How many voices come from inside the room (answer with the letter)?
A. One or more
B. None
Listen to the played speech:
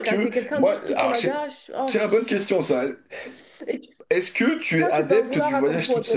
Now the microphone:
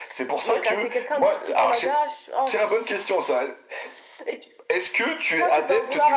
B